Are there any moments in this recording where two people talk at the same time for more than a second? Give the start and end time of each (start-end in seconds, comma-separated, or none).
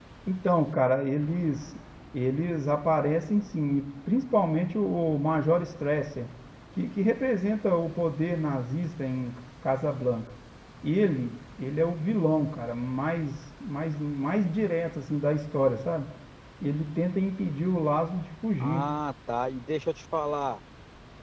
none